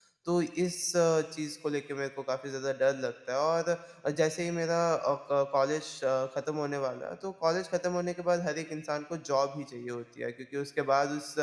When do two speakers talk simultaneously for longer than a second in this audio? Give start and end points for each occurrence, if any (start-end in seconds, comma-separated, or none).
none